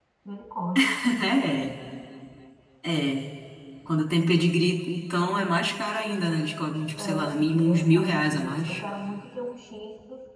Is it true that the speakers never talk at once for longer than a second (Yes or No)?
No